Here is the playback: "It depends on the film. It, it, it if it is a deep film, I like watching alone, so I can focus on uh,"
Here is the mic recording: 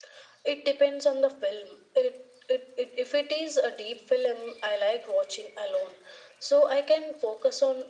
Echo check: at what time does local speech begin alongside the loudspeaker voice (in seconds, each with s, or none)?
none